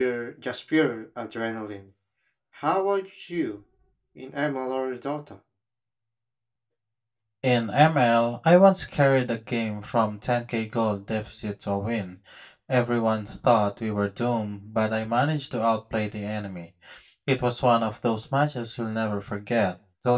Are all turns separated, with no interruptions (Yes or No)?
Yes